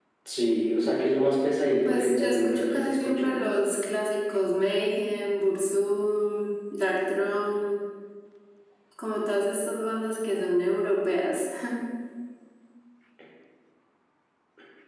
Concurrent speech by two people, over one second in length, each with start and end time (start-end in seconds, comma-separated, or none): 1.9-3.4